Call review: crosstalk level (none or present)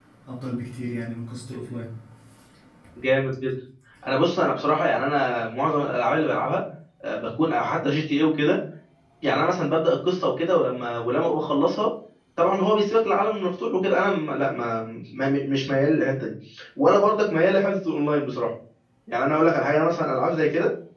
none